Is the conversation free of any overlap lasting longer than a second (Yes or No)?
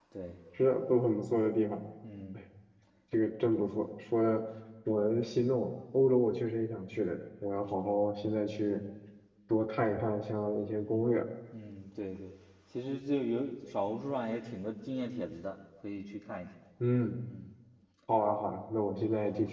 Yes